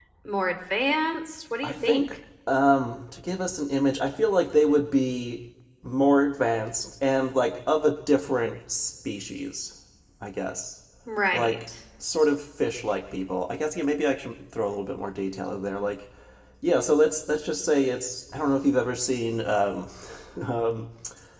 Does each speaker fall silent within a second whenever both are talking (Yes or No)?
Yes